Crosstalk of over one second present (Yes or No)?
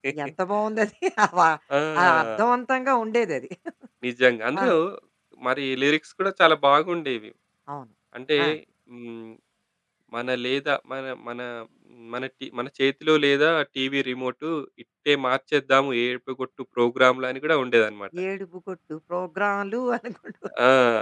No